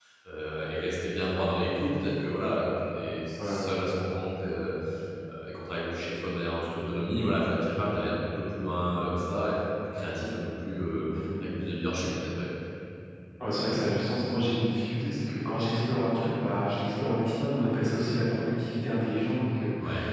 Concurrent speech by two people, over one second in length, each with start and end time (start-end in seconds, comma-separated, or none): none